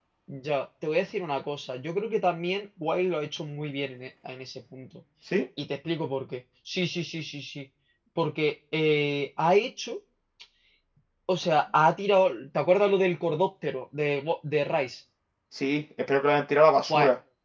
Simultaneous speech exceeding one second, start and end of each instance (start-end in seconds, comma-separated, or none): none